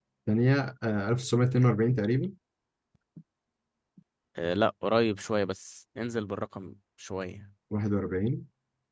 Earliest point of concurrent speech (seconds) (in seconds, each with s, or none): none